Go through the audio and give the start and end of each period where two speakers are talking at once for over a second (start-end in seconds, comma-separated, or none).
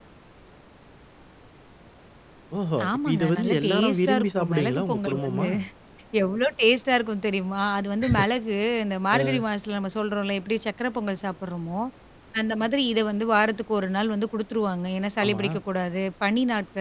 2.9-5.5